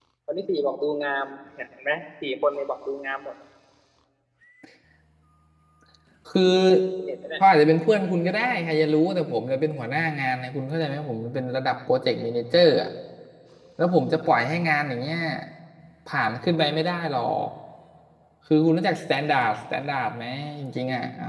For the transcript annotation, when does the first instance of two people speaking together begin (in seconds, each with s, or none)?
none